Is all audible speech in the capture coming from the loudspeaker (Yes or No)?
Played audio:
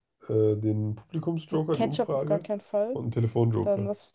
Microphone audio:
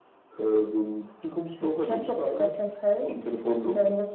Yes